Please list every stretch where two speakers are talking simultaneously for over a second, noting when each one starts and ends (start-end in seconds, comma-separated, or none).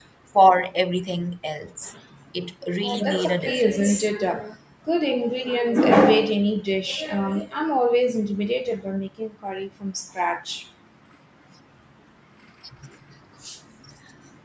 2.8-4.1